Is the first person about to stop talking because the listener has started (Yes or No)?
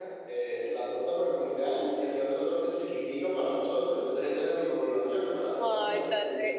Yes